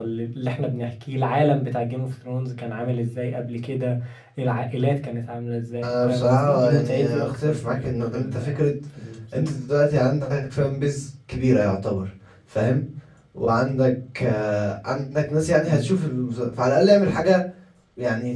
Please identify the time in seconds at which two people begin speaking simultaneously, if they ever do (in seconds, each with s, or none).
5.8 s